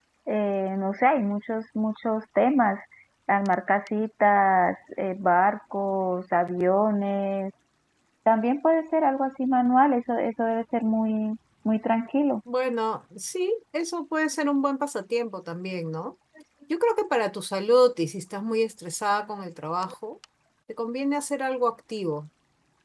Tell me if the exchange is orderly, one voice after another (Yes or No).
Yes